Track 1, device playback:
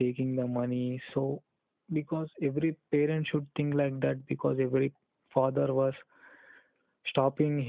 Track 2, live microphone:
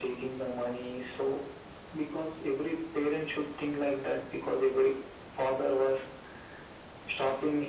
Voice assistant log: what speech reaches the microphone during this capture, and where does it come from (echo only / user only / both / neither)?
echo only